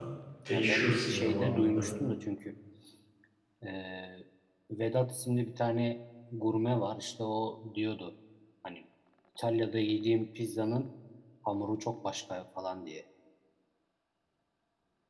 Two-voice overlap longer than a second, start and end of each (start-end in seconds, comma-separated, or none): 0.5-1.9